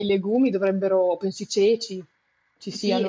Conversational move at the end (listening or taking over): taking over